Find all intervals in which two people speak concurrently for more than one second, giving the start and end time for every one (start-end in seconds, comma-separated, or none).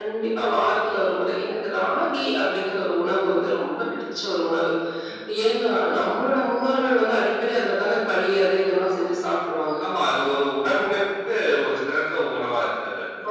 none